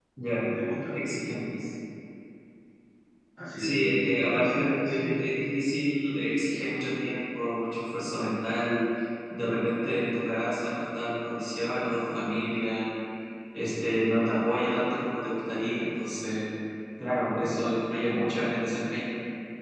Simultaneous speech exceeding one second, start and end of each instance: 3.6-5.0

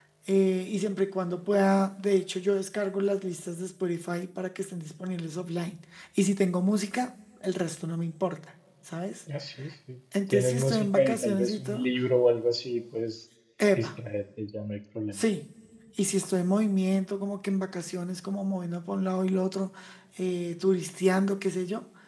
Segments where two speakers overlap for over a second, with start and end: 10.3-11.9

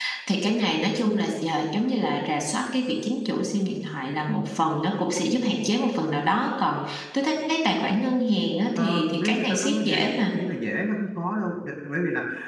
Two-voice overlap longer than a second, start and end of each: 8.8-10.4

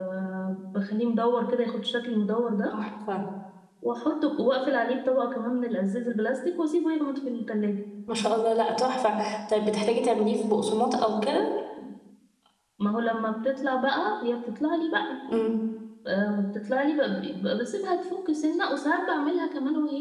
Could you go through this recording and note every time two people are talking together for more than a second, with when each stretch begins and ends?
none

